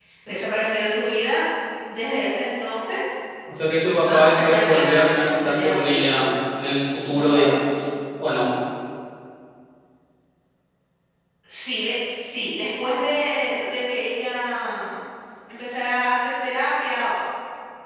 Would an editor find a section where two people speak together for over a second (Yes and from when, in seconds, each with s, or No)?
Yes, from 4.1 s